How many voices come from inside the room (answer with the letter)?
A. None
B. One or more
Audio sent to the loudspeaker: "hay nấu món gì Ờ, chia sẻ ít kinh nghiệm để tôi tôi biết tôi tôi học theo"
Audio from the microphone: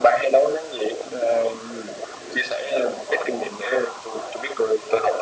A